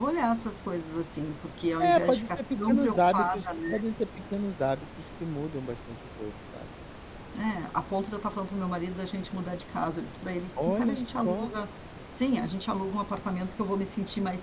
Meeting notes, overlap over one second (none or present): present